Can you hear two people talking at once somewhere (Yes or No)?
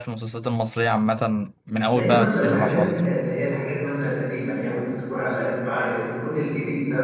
Yes